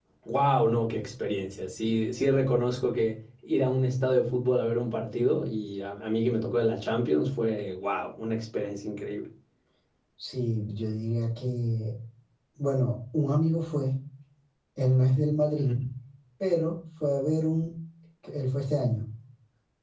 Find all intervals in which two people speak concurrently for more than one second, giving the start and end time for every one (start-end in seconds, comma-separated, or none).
none